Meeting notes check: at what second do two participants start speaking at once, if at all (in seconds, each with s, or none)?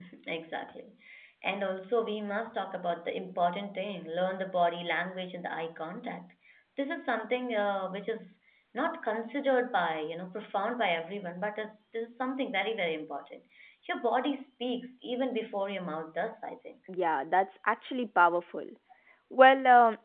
none